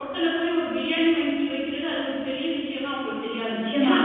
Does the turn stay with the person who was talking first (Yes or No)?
No